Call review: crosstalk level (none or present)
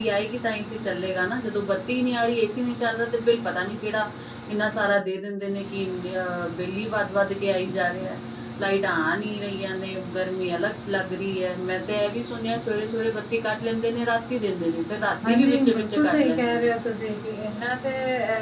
present